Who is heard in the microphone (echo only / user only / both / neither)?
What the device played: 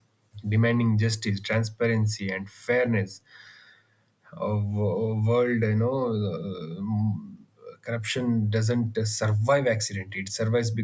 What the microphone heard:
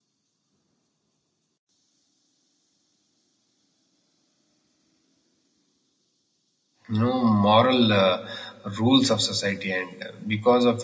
user only